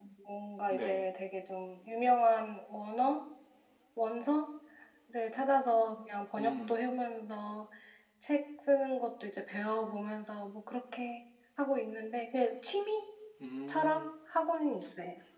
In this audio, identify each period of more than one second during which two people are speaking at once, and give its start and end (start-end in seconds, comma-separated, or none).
none